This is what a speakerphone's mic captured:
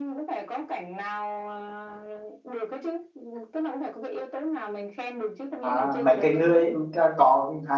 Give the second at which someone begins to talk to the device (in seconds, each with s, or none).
5.6 s